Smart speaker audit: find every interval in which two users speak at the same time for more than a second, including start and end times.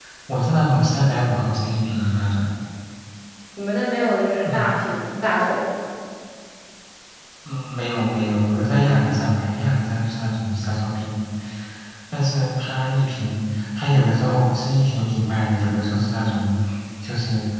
none

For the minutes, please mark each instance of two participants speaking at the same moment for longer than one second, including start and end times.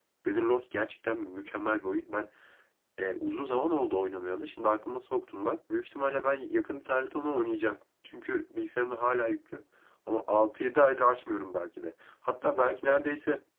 none

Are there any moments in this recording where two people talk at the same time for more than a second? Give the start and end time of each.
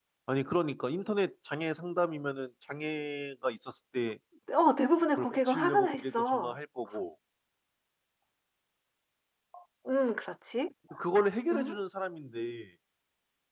5.2-6.6

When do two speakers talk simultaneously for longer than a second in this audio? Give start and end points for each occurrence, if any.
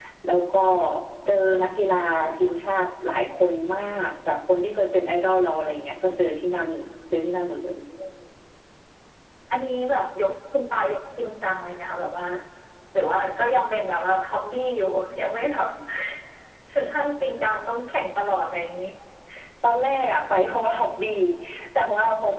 none

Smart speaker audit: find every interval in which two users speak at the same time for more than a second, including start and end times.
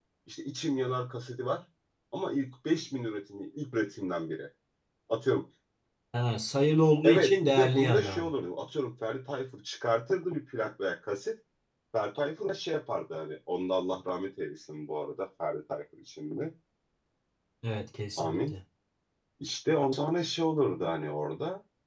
7.0-8.3

